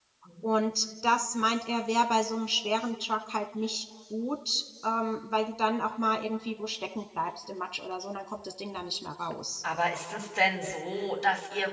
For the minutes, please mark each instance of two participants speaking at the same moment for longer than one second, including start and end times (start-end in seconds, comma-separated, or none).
none